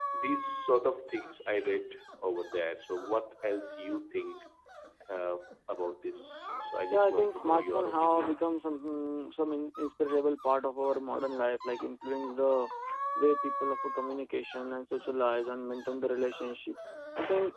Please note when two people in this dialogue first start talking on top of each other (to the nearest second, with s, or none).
7 s